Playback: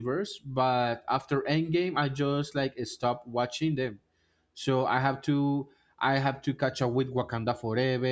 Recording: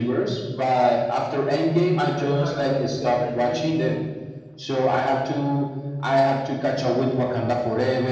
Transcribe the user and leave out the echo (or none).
Ironheart got got like really